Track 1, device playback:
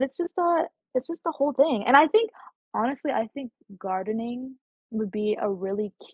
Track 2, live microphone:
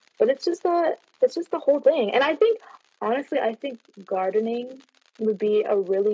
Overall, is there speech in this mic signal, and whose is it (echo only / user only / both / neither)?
echo only